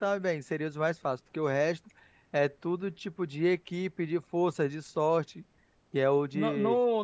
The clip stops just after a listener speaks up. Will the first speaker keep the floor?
No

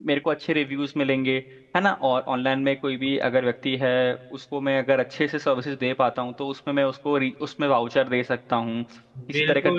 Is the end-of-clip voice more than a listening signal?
Yes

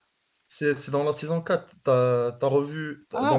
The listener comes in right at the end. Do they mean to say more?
Yes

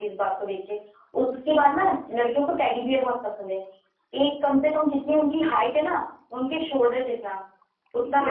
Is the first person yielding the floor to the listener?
No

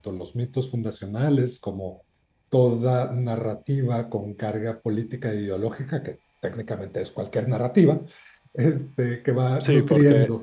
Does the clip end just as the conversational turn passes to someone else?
Yes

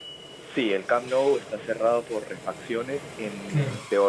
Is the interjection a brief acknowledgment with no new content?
Yes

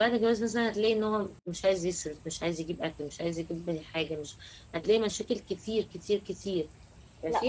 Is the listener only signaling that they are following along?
No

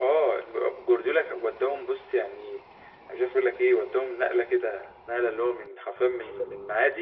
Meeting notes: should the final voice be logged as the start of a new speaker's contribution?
No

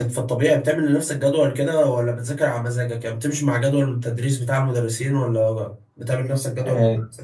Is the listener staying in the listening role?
No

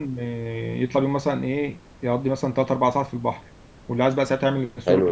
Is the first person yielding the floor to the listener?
Yes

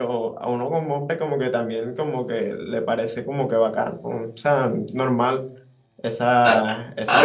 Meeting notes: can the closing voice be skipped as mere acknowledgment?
No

